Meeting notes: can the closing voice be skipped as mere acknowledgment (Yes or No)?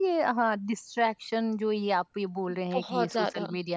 Yes